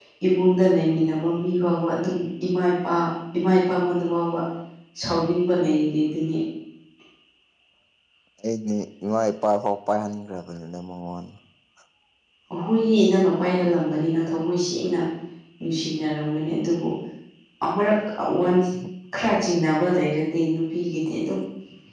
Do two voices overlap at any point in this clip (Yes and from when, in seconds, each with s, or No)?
No